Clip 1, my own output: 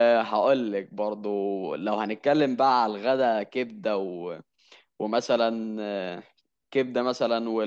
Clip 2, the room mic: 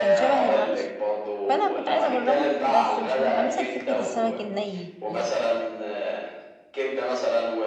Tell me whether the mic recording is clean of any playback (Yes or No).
No